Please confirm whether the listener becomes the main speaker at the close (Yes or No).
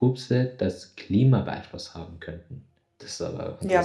Yes